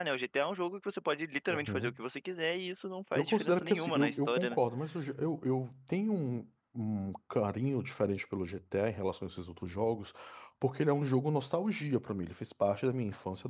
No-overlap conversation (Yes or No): No